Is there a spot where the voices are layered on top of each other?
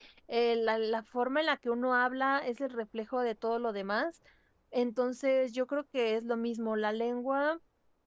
No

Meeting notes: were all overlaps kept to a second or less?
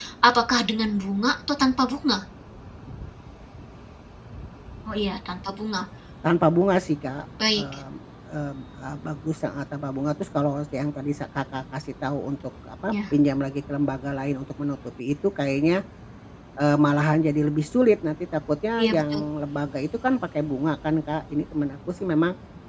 Yes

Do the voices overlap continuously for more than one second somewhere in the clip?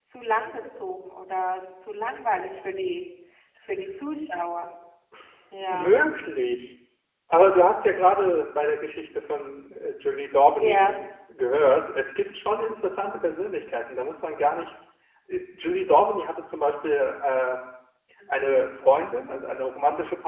No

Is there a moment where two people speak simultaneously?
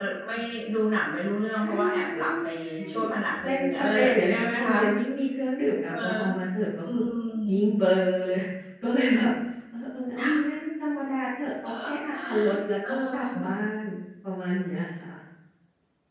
Yes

